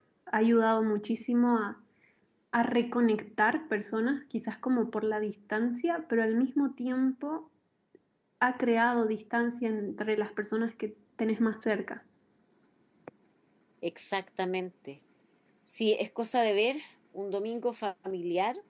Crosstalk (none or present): none